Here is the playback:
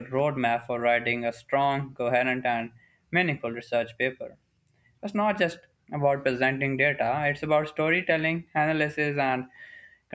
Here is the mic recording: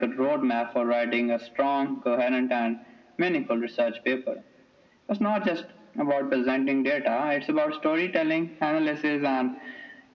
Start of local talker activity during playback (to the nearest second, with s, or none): none